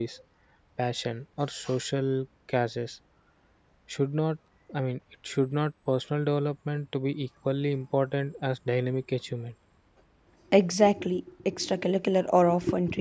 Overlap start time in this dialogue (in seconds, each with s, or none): none